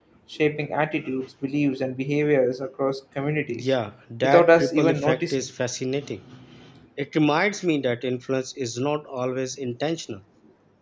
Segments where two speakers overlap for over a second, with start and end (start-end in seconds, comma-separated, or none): 4.2-5.4